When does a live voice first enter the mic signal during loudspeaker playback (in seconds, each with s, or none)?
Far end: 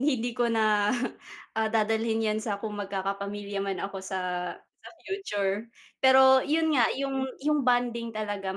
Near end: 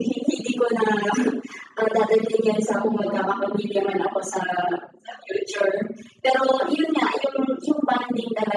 2.7 s